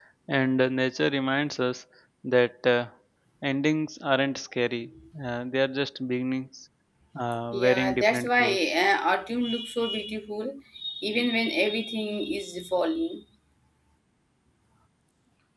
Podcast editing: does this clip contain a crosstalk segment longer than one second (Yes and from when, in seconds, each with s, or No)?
Yes, from 7.5 s